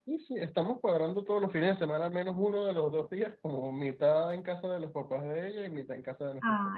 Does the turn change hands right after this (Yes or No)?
Yes